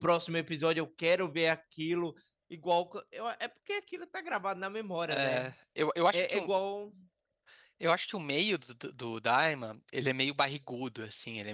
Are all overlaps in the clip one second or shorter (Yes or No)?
Yes